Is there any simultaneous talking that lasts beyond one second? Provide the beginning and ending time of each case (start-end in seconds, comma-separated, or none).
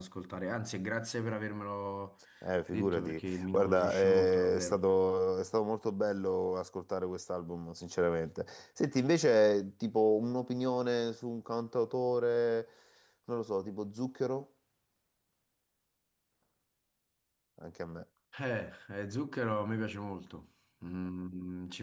2.7-4.8